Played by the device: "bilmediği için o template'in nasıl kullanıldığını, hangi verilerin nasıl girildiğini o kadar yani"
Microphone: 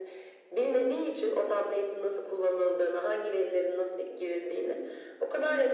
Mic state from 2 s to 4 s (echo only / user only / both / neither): echo only